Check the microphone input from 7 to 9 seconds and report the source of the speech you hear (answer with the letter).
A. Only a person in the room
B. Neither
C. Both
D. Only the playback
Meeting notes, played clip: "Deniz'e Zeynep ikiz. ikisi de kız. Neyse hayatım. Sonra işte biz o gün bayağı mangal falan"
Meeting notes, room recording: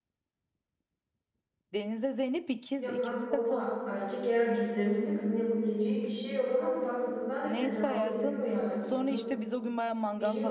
C